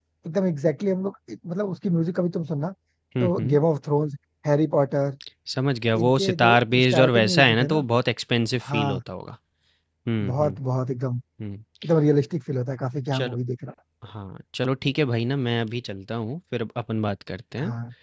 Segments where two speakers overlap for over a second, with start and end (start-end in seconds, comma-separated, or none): 6.0-7.8